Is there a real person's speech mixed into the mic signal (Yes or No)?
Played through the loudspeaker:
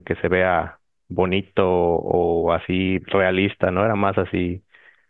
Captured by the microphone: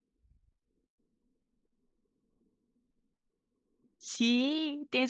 Yes